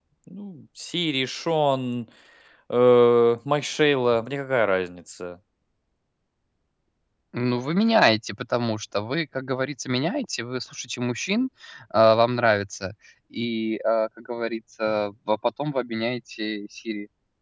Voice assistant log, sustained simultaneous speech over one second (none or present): none